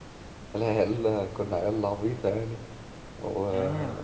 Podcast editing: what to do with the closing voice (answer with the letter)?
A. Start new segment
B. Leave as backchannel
B